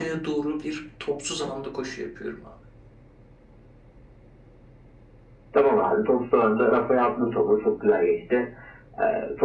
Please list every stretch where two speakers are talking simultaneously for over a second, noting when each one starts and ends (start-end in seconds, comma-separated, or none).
none